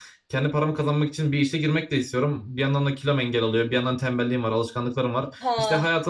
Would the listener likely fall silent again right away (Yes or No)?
Yes